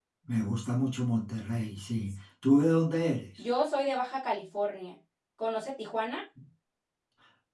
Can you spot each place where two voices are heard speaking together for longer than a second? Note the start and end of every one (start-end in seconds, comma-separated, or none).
none